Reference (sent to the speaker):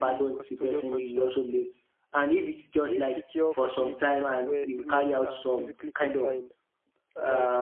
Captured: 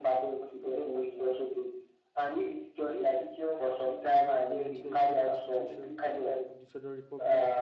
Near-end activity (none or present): present